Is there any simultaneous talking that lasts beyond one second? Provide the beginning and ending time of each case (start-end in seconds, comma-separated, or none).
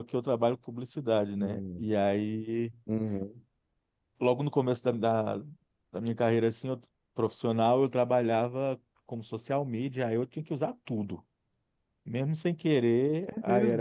none